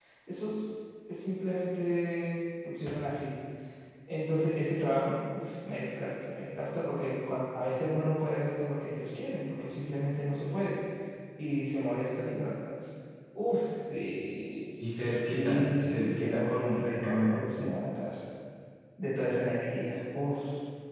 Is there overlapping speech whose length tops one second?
Yes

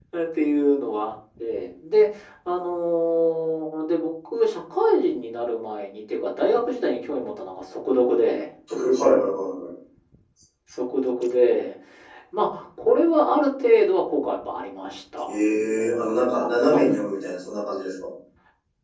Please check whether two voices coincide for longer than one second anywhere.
No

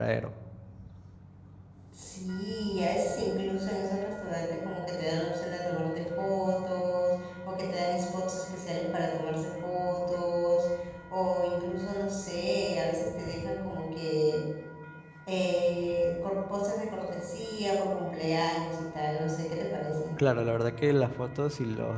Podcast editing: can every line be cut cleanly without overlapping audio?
Yes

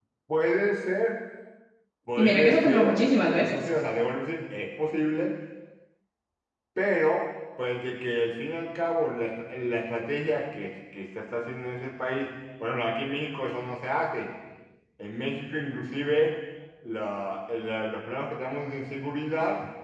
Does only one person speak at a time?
No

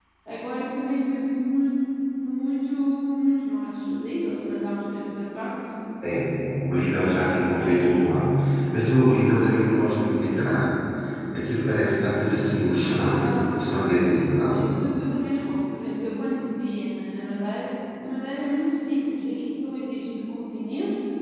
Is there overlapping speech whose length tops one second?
No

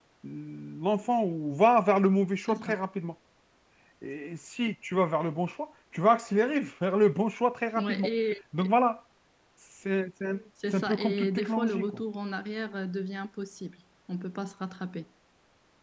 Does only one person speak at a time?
No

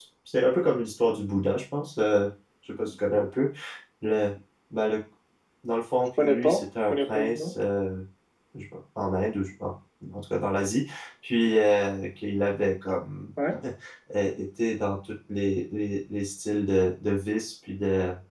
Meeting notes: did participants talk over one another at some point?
Yes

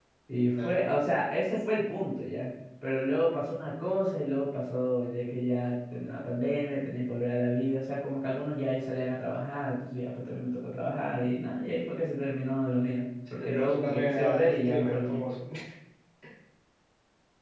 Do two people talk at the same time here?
Yes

